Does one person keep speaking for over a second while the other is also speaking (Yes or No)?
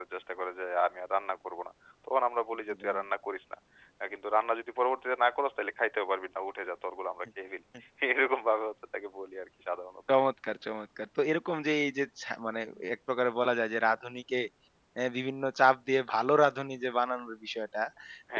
No